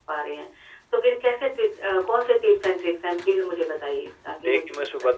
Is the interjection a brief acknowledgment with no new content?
No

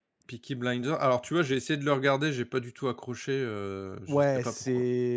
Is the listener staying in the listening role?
No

